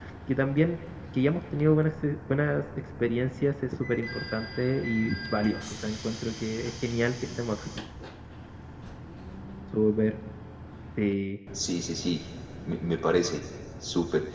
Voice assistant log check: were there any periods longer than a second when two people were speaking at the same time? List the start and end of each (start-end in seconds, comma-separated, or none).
none